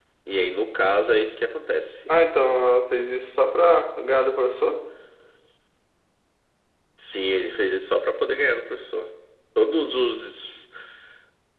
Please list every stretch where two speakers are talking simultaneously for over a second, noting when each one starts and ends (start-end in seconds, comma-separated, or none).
none